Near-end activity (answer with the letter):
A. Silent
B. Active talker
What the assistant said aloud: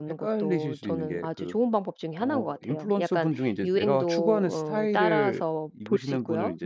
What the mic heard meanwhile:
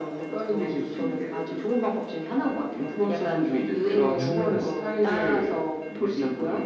B